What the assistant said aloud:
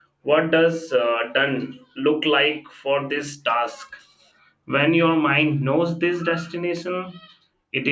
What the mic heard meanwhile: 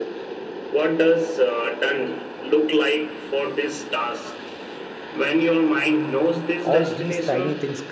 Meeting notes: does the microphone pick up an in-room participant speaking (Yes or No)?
Yes